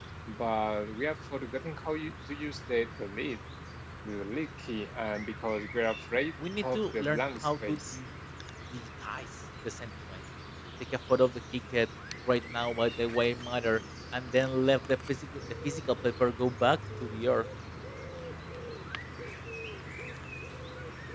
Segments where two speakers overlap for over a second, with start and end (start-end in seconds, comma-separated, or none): 6.6-8.0